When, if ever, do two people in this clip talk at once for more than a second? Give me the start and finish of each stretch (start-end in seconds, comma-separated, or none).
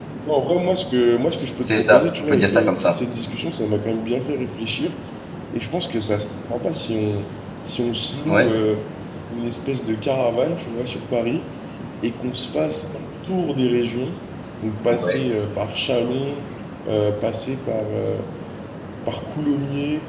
1.7-2.9